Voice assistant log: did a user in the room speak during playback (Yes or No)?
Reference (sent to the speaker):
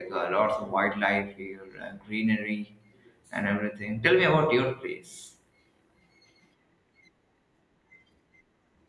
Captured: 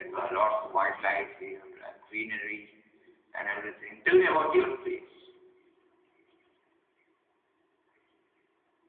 No